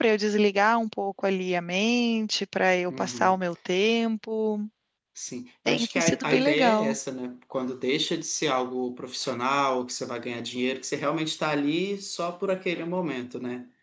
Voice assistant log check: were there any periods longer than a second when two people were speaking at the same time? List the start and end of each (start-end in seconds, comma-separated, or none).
5.7-7.0